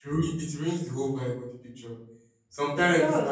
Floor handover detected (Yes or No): No